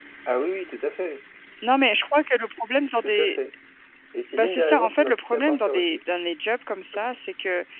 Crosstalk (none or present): present